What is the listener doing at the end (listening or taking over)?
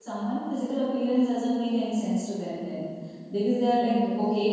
listening